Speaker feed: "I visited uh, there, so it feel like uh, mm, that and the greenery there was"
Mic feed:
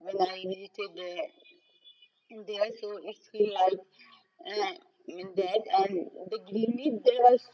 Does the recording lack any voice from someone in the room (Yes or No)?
Yes